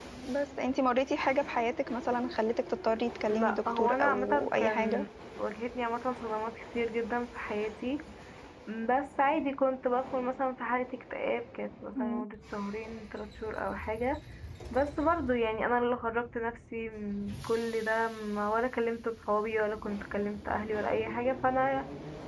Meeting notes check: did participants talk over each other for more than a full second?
Yes, from 3.3 s

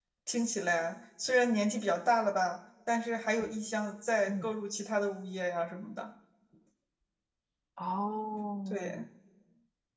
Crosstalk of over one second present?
No

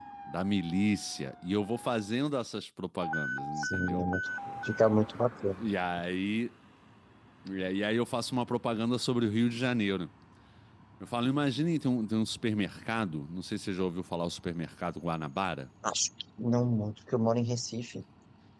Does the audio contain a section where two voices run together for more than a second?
No

